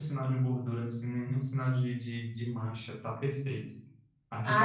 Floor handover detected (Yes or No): Yes